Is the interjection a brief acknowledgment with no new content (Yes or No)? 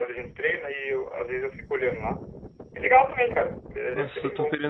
No